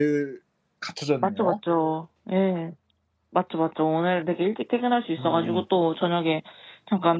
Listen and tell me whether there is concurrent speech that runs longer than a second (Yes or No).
No